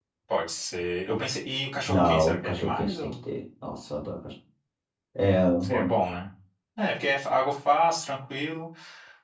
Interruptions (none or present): present